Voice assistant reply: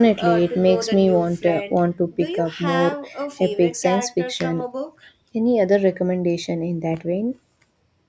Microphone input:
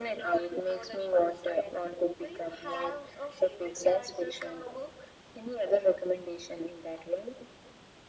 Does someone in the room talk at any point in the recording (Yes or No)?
No